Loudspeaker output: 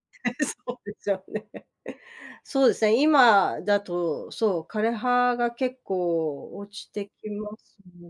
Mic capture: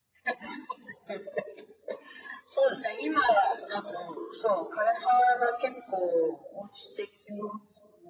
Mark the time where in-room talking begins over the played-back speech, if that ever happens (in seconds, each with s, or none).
none